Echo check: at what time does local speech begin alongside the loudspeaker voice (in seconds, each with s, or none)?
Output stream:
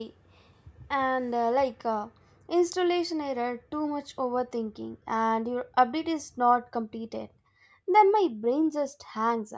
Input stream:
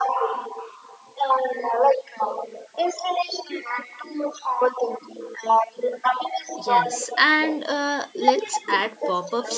6.6 s